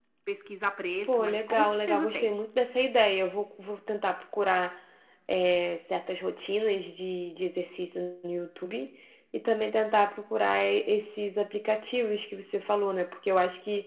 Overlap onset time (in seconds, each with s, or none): 1.0 s